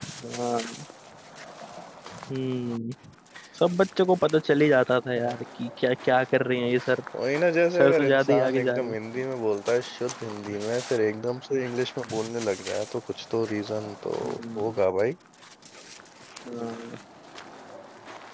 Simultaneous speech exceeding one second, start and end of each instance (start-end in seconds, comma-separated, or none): 7.8-9.2